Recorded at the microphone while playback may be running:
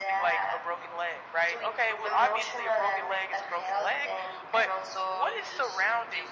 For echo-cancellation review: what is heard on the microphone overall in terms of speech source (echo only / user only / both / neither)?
echo only